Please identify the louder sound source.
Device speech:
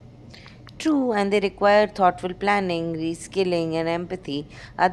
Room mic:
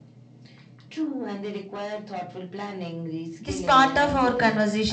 user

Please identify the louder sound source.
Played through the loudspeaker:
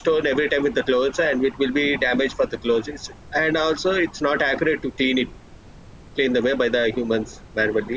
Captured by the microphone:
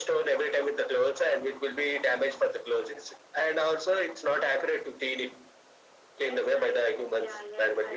echo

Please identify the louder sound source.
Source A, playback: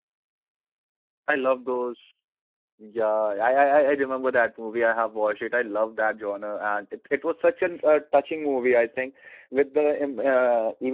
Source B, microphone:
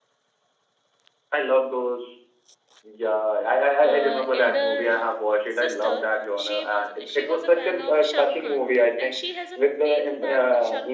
echo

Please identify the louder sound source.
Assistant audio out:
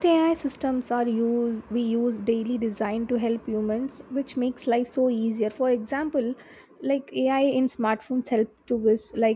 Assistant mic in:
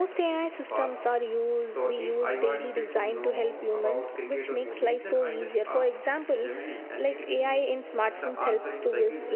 echo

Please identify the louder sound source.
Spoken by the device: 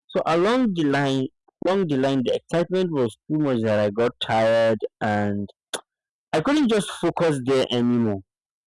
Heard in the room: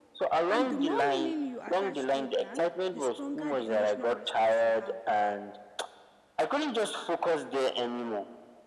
echo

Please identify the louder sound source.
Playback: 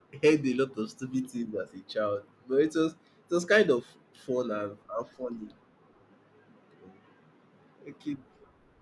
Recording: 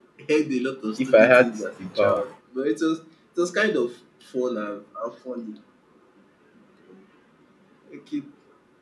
user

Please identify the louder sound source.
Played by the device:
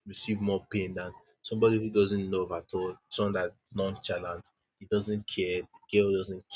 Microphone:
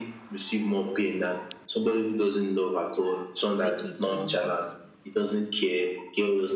echo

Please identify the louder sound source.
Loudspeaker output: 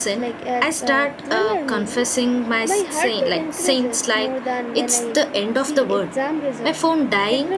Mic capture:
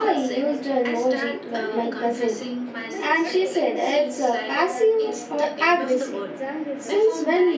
user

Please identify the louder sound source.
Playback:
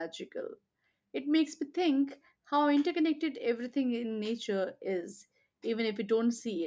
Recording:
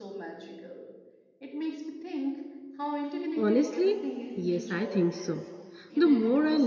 user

